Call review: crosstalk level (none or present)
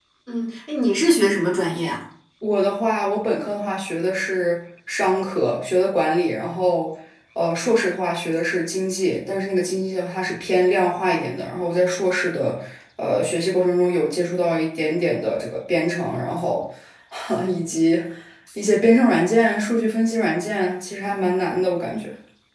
none